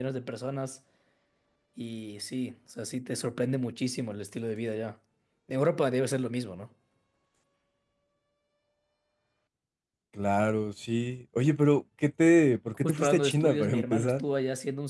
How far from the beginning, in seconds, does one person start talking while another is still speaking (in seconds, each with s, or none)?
12.8 s